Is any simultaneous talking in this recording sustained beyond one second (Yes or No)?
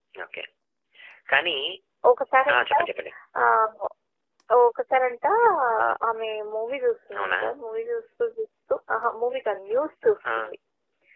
No